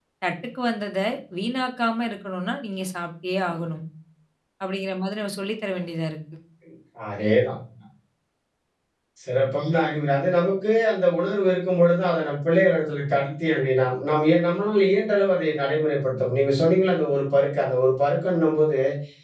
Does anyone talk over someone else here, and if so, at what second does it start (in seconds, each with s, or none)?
none